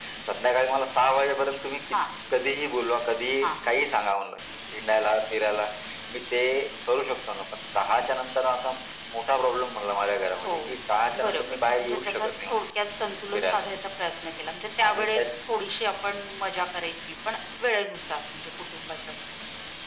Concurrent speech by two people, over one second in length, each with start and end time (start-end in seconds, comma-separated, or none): 11.2-12.6